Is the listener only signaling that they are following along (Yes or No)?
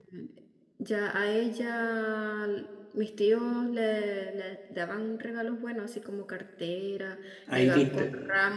Yes